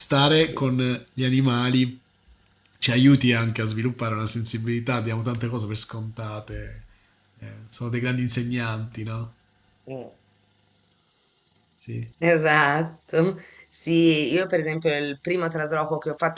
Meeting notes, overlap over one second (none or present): none